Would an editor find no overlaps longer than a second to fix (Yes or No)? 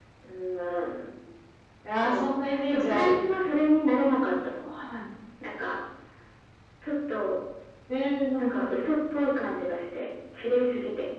No